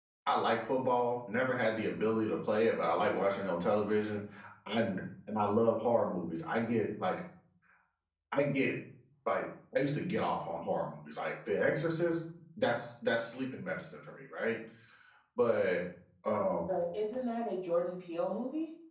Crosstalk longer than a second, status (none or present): none